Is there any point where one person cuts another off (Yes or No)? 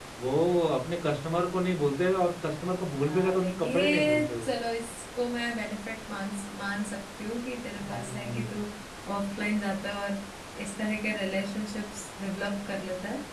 Yes